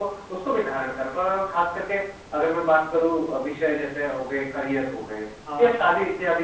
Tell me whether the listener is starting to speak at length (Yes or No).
No